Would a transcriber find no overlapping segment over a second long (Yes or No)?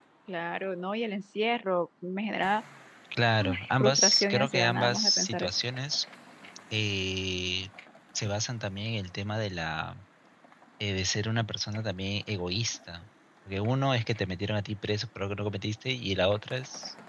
No